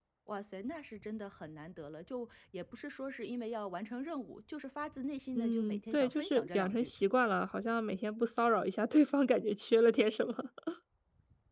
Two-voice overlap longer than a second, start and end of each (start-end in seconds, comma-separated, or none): 5.4-6.9